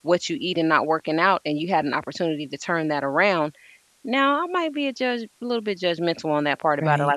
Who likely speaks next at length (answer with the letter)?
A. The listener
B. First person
B